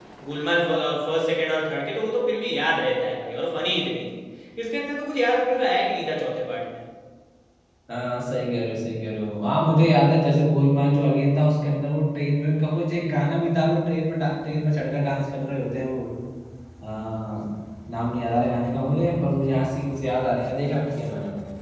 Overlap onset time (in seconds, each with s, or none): none